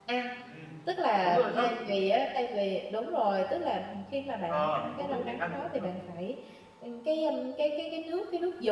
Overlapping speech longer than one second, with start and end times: 4.5-5.9

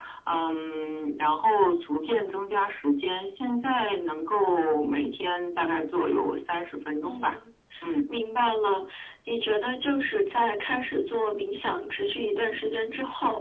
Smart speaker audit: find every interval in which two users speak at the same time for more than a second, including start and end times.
none

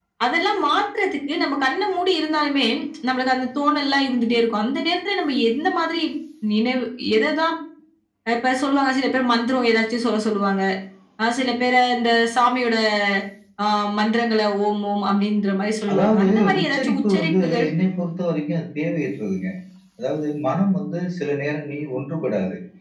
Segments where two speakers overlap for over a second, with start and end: 15.9-17.7

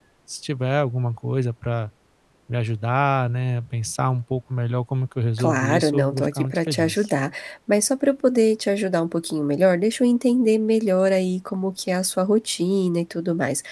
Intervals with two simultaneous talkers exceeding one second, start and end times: 5.4-7.0

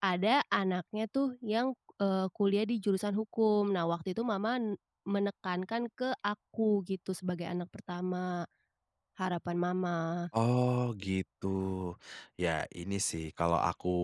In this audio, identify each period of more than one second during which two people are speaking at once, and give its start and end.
none

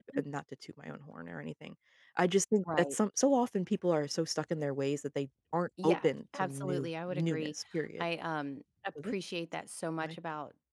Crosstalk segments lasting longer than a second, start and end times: 5.8-7.5

